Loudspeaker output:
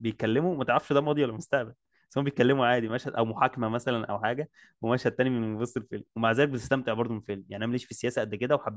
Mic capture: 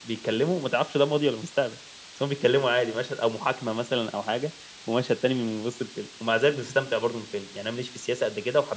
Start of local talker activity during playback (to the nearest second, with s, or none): none